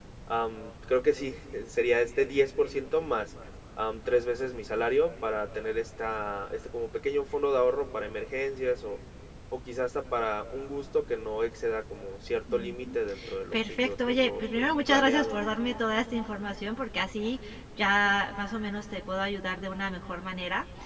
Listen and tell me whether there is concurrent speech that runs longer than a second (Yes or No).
Yes